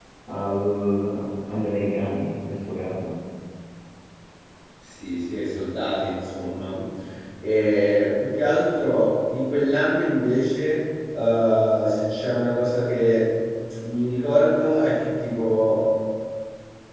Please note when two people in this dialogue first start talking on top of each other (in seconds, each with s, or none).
none